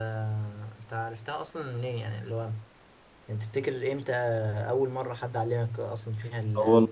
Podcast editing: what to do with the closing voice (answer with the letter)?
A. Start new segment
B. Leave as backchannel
A